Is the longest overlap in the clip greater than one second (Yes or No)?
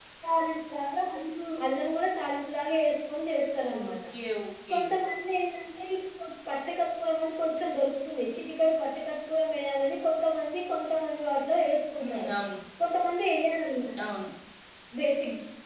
No